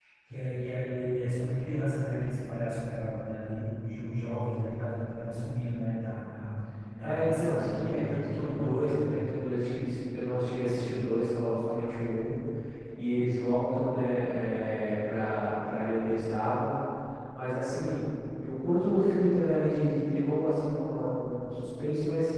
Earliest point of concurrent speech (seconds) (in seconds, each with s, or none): 7.0 s